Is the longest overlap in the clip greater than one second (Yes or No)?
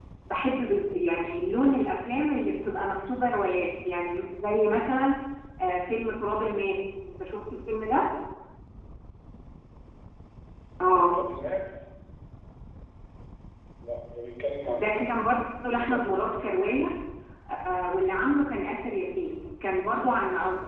Yes